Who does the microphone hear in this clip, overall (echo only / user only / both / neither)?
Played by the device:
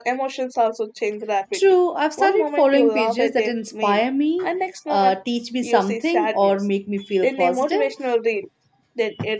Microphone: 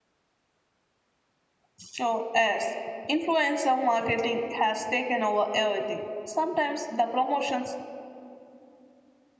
user only